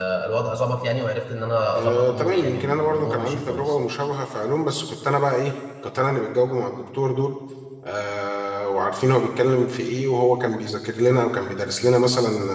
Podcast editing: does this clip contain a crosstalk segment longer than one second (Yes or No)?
Yes